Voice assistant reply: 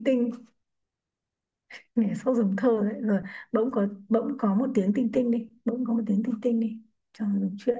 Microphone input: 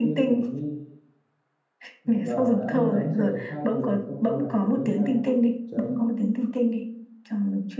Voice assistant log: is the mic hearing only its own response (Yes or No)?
No